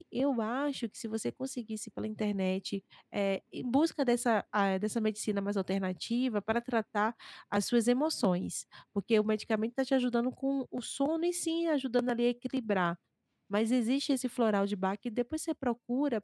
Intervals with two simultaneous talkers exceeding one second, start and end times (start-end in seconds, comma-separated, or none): none